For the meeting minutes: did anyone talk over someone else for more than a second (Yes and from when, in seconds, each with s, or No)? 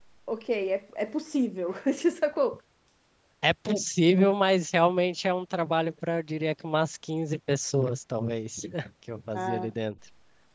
No